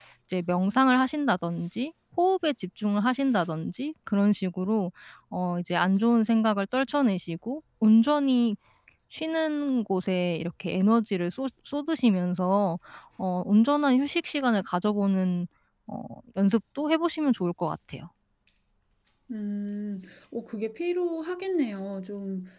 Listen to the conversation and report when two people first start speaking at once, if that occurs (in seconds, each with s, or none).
none